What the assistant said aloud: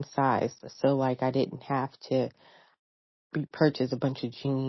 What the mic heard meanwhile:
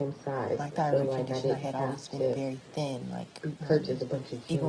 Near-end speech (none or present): present